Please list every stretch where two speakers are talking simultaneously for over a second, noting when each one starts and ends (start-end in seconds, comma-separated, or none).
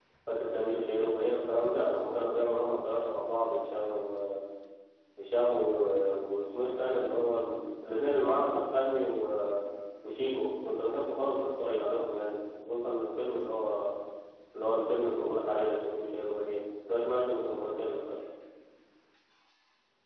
none